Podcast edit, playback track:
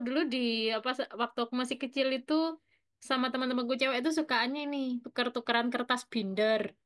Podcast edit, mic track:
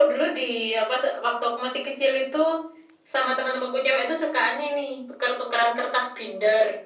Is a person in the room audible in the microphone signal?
No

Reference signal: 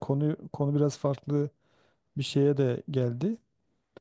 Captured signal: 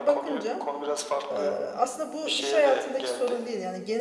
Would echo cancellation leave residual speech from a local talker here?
Yes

